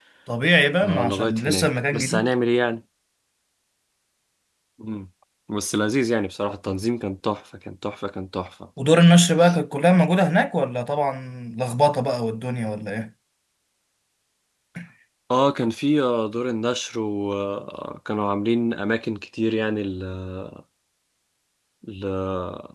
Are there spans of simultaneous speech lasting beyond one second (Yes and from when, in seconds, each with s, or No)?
Yes, from 0.8 s